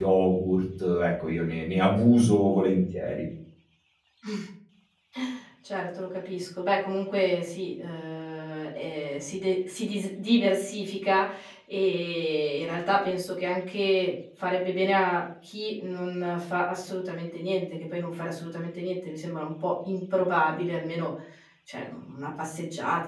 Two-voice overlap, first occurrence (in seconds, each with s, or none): none